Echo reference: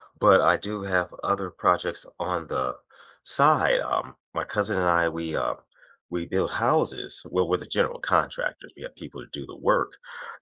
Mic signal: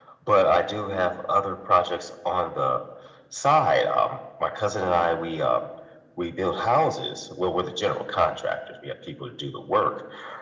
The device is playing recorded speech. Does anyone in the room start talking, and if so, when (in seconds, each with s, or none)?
none